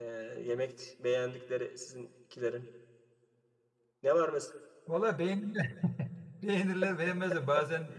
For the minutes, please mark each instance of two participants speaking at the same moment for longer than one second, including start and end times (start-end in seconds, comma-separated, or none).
none